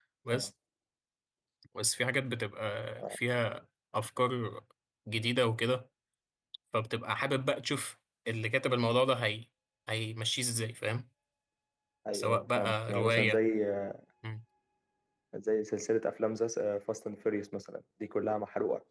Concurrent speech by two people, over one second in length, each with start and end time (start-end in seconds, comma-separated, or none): 12.1-13.4